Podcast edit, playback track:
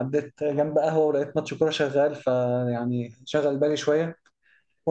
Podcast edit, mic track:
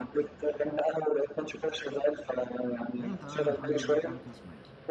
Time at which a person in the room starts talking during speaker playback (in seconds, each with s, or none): 3.0 s